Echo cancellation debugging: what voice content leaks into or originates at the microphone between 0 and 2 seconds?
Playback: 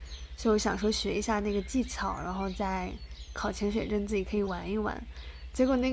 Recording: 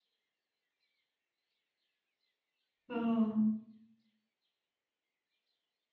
neither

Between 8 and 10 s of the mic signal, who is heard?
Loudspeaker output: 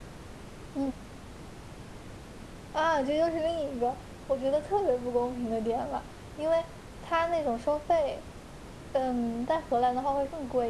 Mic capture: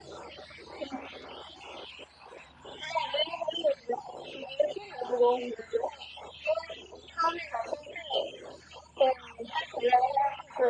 echo only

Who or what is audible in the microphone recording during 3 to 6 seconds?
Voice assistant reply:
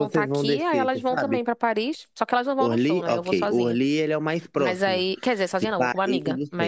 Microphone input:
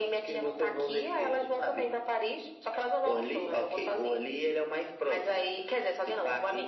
echo only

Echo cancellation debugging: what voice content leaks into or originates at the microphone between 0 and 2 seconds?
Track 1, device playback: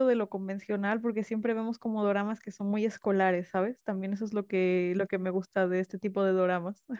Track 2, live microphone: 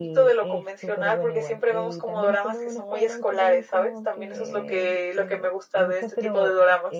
both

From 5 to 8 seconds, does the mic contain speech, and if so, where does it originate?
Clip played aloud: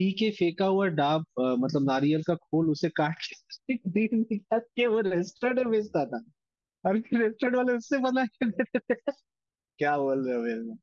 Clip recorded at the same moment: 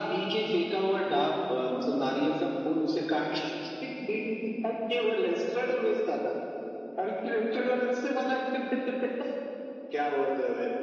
echo only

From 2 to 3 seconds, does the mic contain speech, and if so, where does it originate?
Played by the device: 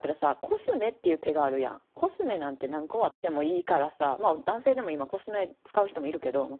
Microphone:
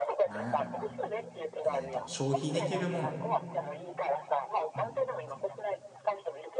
both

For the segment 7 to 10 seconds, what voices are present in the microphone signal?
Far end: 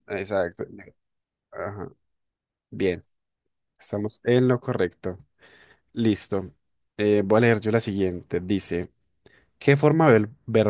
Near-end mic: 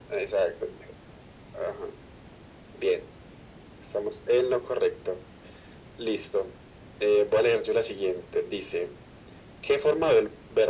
echo only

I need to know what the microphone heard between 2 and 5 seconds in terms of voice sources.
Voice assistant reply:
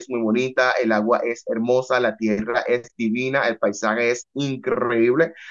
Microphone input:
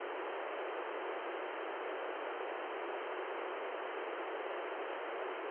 neither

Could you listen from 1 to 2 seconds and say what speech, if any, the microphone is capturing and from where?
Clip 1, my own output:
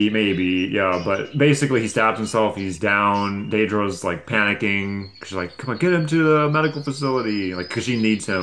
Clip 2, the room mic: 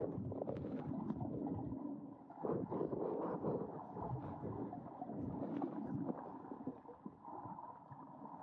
neither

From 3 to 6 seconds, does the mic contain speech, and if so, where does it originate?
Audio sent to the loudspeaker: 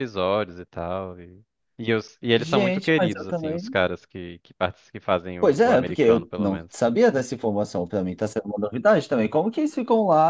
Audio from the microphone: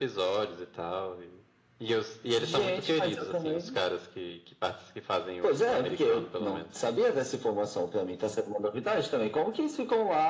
echo only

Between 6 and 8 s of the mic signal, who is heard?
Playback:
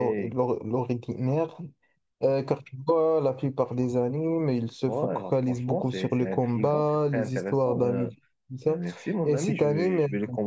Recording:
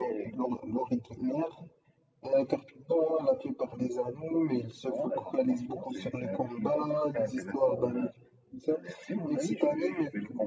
echo only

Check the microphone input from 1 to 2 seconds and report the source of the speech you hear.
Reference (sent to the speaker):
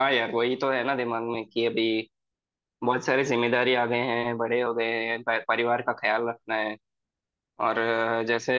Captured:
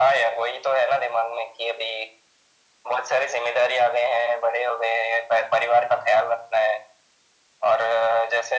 echo only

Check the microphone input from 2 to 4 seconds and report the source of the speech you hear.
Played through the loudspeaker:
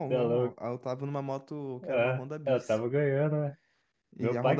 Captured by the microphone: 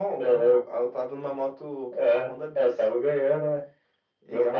echo only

